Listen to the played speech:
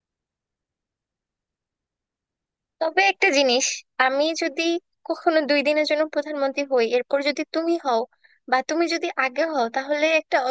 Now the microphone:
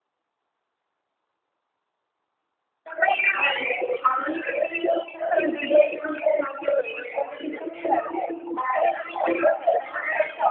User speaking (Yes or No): No